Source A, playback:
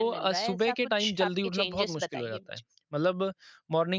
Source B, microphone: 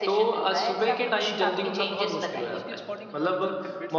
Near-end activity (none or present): present